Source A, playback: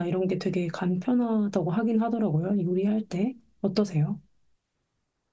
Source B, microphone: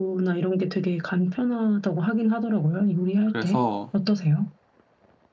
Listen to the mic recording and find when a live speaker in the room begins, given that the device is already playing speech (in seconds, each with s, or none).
3.2 s